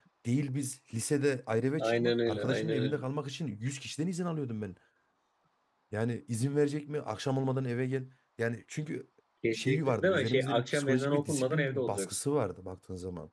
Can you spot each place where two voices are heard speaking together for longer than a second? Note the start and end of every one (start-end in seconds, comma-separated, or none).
1.8-3.0, 9.5-12.2